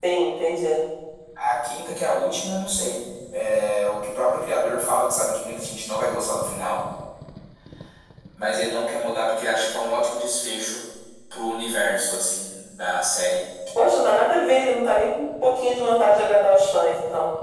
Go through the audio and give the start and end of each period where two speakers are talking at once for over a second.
none

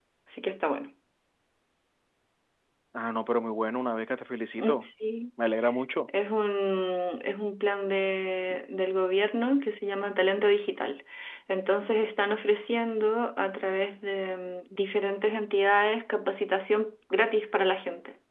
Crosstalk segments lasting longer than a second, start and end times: none

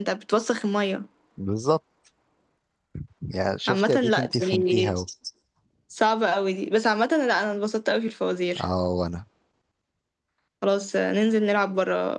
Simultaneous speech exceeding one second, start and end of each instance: 3.7-4.9

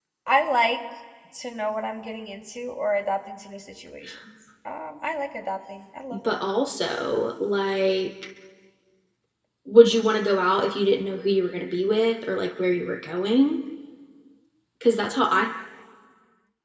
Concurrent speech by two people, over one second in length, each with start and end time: none

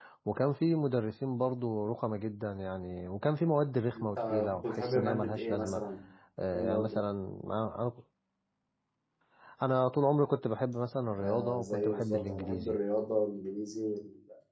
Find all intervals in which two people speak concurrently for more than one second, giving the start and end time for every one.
3.9-5.8, 11.2-12.8

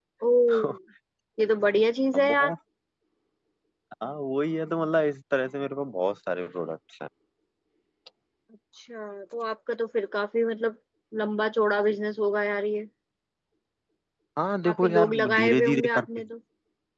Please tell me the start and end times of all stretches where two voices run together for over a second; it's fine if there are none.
14.6-16.1

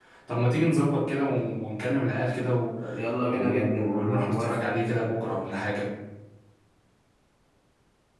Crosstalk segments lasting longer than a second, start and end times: 3.3-4.6

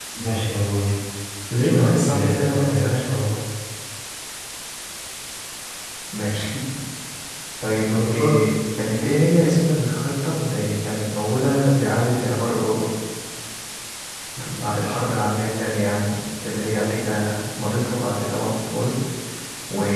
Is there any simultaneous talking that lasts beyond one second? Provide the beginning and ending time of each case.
1.6-3.1

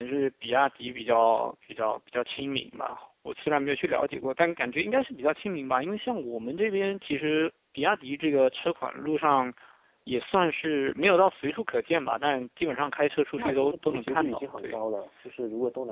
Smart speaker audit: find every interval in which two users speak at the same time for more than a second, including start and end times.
13.4-14.8

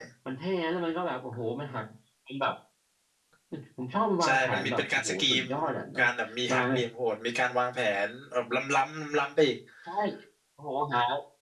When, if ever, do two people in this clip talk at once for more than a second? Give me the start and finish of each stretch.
4.2-5.5

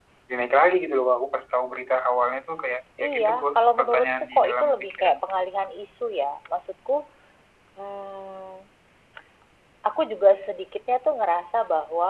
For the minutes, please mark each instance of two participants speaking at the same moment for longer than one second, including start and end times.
3.0-5.2

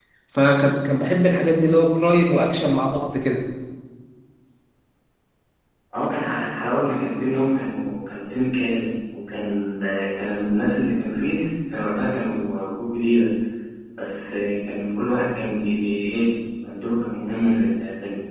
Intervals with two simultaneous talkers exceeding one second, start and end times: none

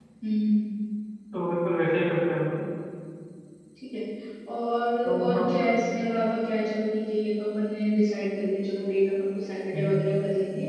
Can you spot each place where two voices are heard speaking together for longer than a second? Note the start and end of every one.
none

